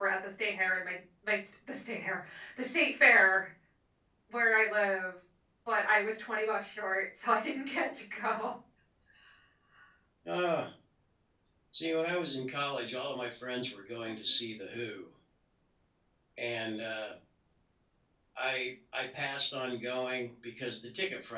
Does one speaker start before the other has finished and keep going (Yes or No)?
No